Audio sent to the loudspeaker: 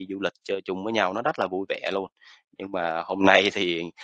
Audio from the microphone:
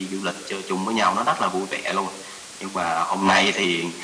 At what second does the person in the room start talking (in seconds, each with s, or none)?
none